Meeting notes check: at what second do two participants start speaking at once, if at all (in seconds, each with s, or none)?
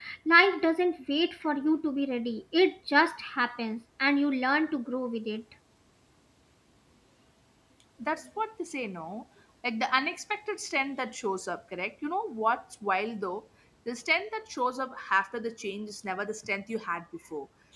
none